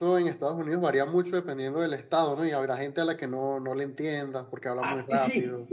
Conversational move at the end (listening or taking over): taking over